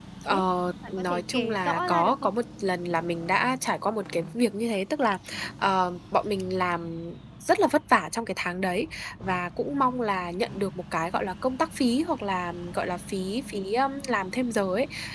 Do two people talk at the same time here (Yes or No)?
Yes